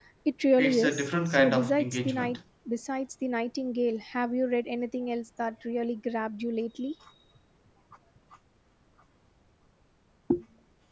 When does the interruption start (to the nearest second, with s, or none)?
1 s